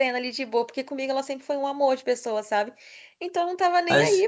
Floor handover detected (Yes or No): No